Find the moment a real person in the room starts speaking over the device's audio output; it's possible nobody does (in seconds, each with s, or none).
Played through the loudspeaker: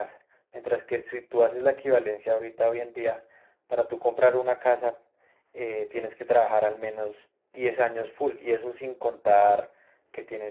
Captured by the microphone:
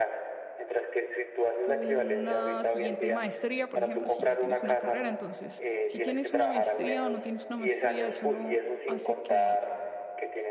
1.6 s